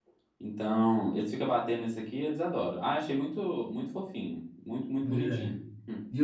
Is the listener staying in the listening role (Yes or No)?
No